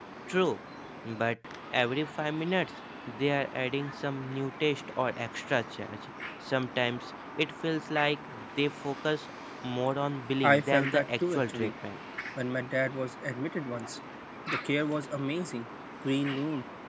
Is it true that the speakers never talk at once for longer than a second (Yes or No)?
No